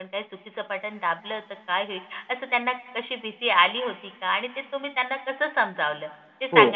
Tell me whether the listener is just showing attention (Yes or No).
No